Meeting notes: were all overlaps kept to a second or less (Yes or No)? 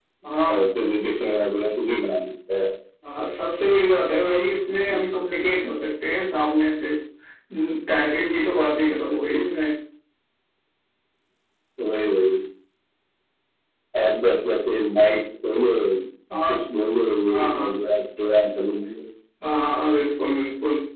Yes